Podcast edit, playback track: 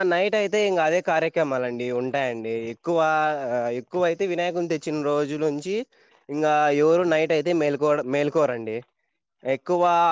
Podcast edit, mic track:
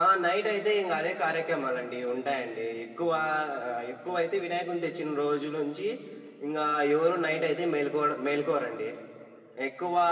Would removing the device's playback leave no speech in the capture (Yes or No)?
Yes